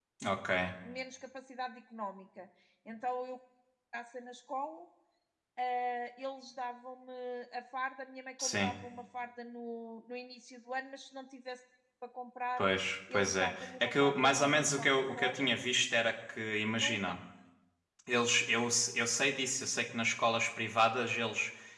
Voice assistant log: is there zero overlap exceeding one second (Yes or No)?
No